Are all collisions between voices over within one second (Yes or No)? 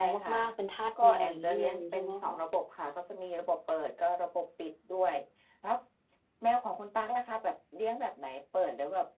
No